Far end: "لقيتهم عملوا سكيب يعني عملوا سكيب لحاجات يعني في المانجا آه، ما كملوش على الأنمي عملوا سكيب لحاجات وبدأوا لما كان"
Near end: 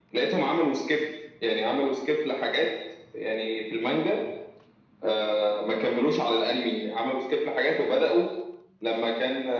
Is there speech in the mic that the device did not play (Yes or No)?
No